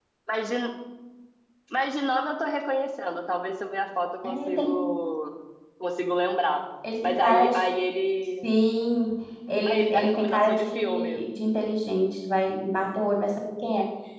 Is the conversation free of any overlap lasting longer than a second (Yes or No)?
No